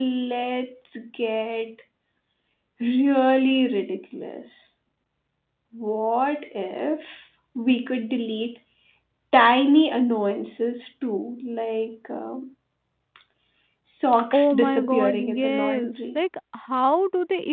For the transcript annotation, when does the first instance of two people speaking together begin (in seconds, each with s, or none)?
14.3 s